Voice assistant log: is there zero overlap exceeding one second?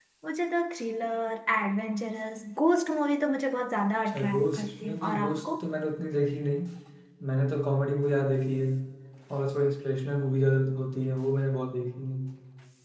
No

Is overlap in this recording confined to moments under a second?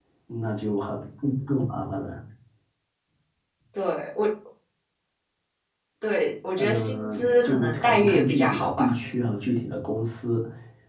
No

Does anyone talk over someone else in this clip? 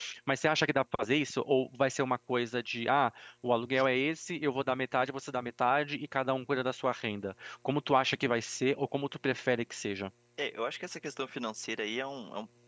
No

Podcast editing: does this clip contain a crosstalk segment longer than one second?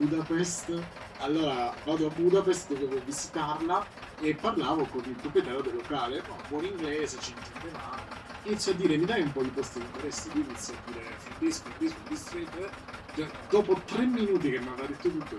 No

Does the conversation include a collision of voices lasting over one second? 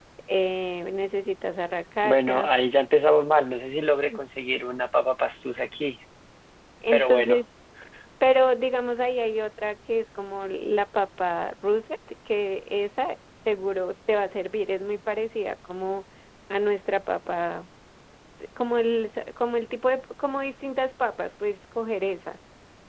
No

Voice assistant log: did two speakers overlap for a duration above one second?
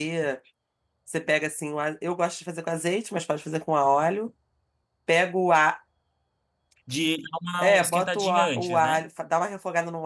Yes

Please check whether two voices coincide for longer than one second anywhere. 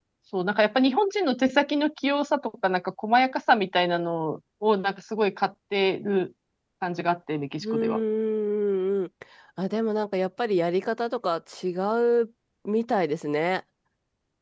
No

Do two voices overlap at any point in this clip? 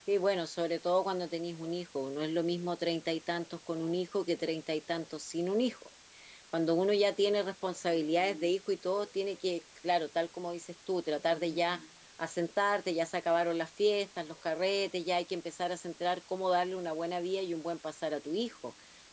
No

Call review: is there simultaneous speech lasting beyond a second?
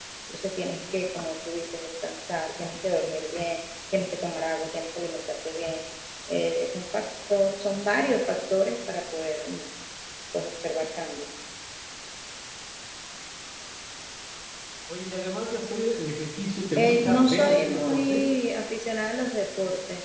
Yes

